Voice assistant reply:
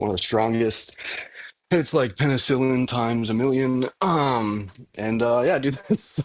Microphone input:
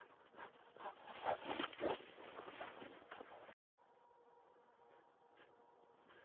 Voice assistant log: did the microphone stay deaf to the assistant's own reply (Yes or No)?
Yes